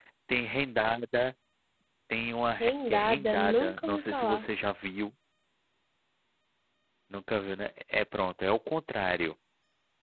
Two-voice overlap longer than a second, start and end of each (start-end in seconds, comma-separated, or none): 2.6-4.5